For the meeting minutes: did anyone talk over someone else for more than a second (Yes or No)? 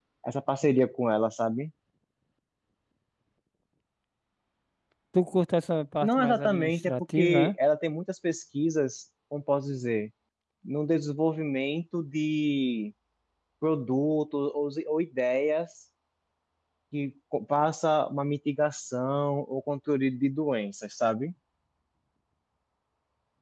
Yes